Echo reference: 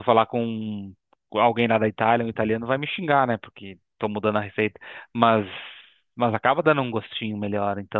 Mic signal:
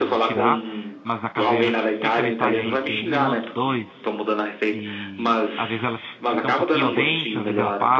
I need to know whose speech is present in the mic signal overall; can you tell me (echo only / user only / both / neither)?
both